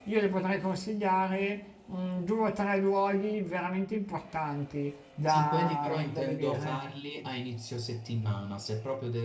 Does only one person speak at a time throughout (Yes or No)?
No